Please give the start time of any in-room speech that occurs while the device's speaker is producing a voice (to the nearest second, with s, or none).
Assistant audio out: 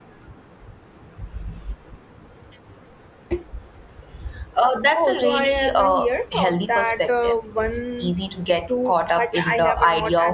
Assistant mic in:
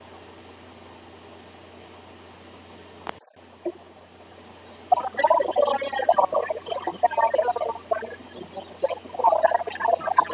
none